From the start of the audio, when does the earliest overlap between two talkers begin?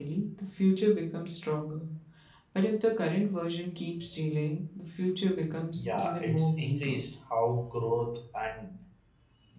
5.7 s

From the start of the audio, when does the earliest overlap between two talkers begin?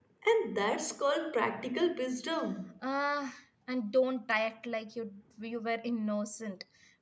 none

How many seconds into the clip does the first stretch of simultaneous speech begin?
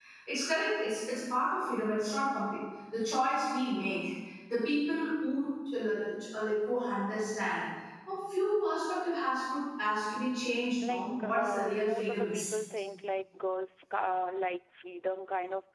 10.8 s

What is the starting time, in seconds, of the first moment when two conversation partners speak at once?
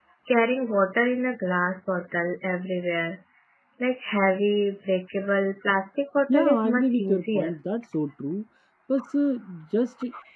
6.3 s

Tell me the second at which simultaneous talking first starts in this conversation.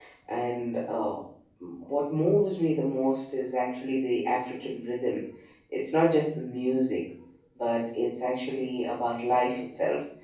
none

